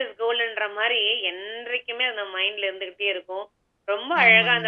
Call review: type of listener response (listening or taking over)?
listening